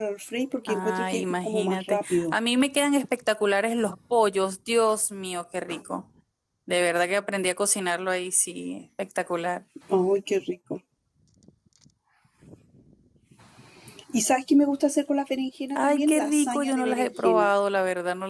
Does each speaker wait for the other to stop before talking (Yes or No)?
No